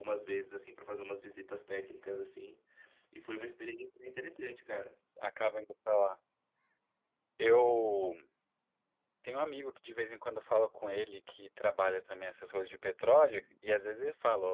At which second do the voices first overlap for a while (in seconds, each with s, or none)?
none